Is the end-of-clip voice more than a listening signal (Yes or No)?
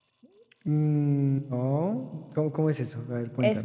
Yes